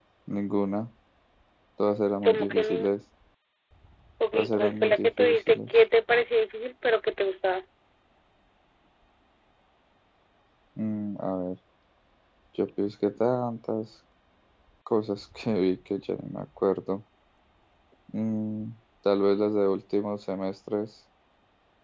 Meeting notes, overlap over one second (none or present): present